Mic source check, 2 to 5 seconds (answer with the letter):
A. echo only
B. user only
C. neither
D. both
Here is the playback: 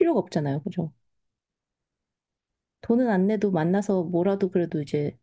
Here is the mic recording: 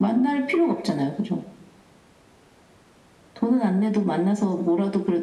A